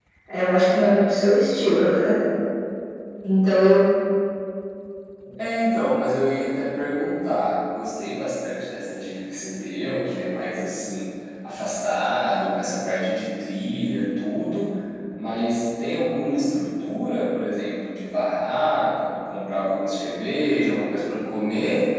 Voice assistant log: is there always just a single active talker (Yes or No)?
Yes